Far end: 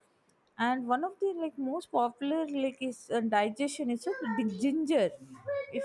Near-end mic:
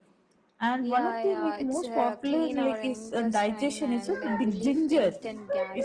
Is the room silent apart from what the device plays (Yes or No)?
No